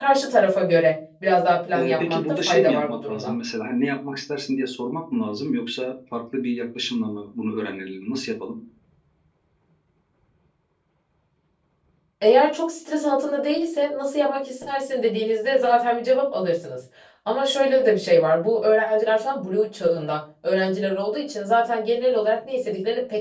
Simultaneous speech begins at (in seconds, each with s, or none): 1.7 s